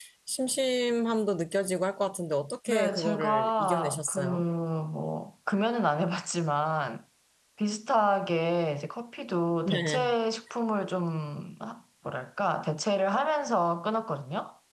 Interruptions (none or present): present